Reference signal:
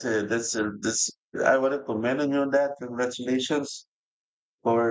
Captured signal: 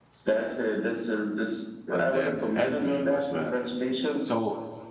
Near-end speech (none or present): present